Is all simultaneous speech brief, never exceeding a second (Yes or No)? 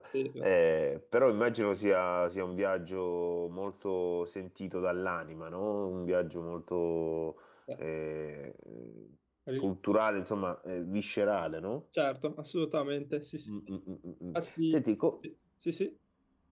Yes